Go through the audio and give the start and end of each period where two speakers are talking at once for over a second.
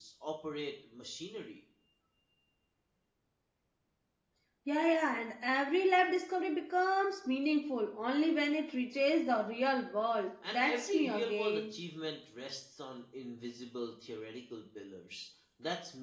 10.5-11.7

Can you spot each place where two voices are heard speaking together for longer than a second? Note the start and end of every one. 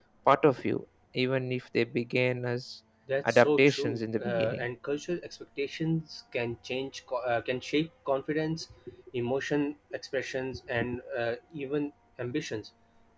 3.2-4.7

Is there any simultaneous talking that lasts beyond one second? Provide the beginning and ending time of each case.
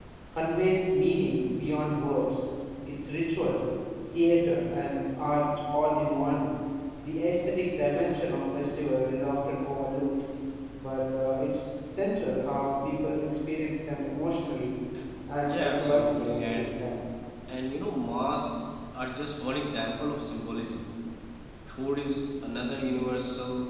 15.5-16.8

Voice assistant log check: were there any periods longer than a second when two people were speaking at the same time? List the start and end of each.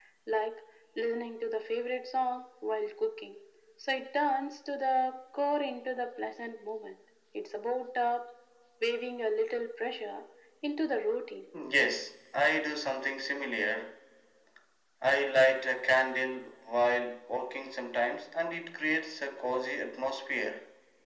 none

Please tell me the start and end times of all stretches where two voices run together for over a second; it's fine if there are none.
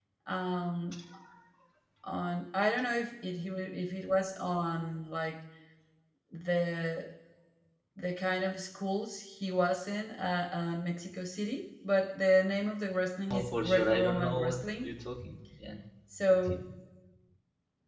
13.3-14.9

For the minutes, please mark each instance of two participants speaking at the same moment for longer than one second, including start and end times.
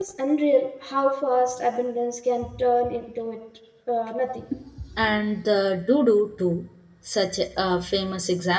none

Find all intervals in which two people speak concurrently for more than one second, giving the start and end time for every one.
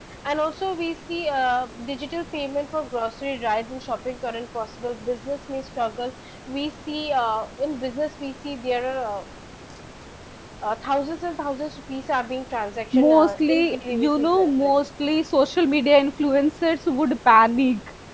13.0-14.7

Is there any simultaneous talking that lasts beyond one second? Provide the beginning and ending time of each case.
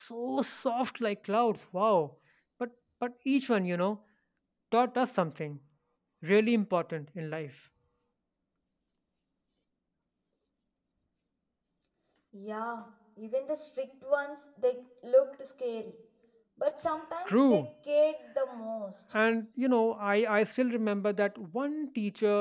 none

